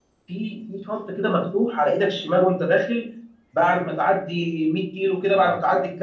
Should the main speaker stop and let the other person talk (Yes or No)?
No